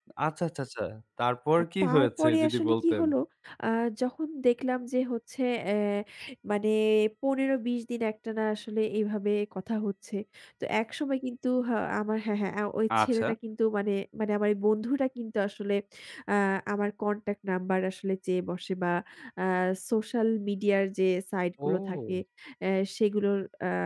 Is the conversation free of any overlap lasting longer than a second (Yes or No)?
No